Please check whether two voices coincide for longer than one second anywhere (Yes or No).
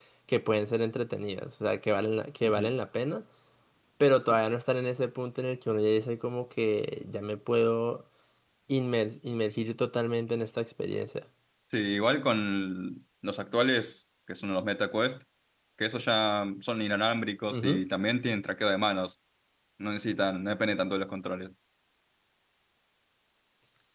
No